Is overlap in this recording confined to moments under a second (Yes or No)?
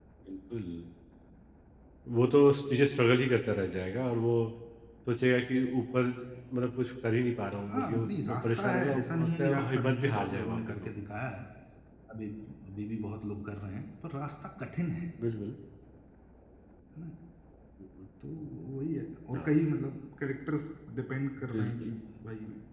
No